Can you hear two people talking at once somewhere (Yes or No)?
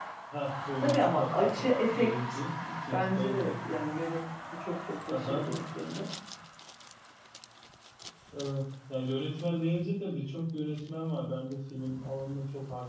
Yes